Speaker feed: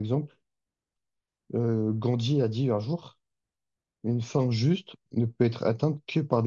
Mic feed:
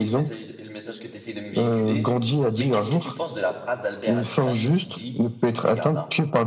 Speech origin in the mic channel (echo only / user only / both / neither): both